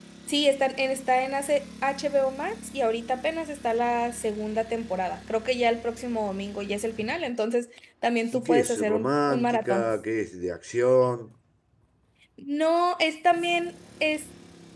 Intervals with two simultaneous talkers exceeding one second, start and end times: 8.3-9.9

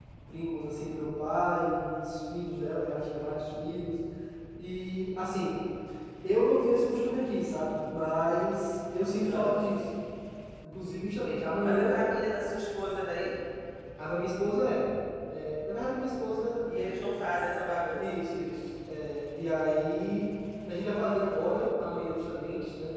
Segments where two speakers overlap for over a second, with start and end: none

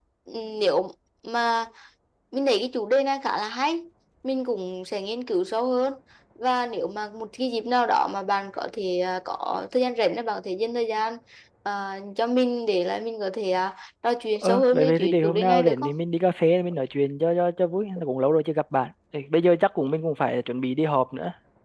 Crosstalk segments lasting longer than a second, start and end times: 14.4-15.9

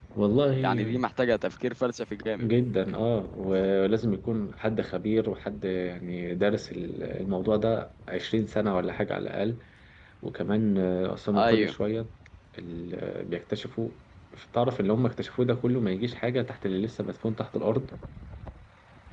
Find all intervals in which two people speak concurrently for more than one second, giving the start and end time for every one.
none

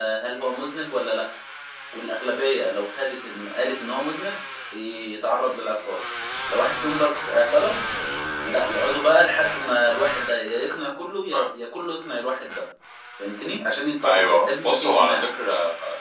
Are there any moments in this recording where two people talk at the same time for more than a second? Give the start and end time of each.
14.0-15.3

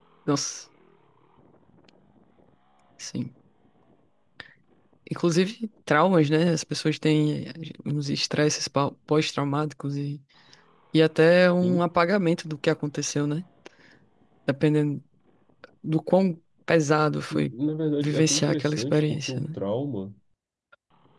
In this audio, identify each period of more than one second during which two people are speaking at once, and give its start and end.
18.0-19.6

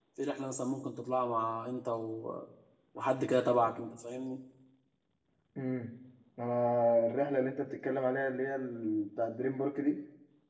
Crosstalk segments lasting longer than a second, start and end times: none

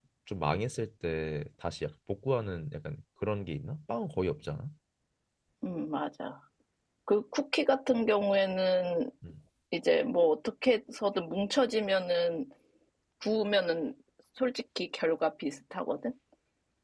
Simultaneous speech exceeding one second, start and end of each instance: none

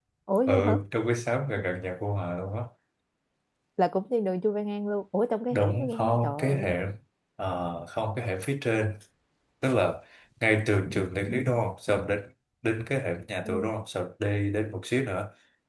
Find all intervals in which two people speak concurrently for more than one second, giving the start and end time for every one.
5.5-6.7

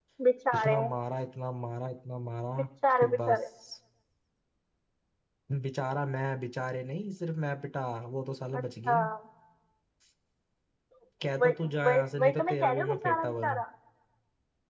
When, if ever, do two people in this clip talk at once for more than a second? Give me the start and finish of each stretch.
11.4-13.5

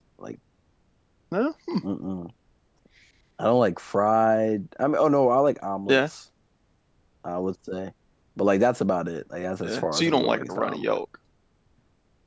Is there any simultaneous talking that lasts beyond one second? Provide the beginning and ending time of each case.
9.6-10.9

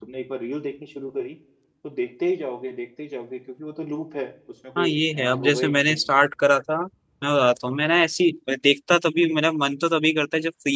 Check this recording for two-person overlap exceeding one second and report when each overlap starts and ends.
4.8-6.1

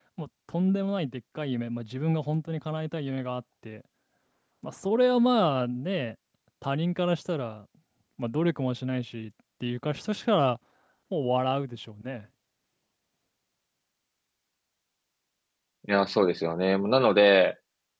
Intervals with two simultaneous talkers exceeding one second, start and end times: none

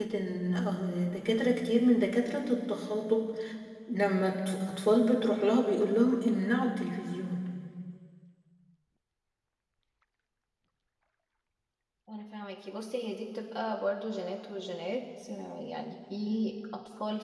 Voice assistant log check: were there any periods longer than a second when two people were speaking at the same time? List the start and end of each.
none

